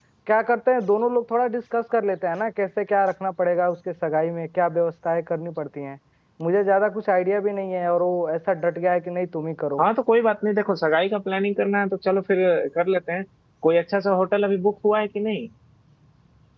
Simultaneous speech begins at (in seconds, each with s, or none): none